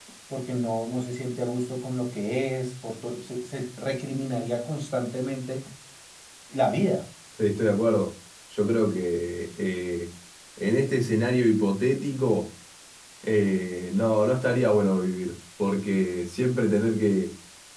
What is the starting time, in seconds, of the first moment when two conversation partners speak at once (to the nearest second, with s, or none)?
none